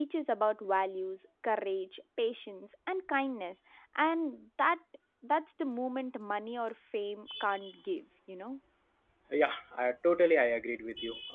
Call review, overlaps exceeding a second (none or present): none